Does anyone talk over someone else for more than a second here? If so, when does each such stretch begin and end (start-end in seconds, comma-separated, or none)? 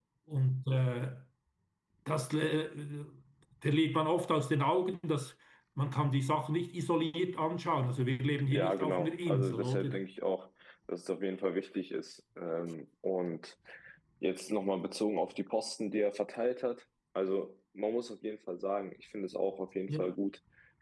8.5-9.9